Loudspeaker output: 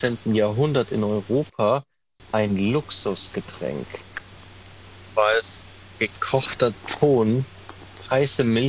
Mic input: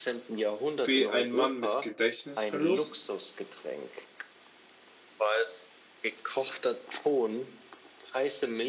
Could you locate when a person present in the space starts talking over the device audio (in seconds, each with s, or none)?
0.8 s